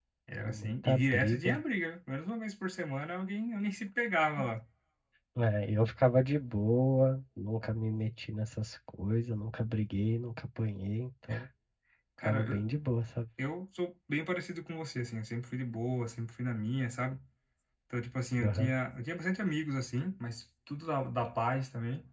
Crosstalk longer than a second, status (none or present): present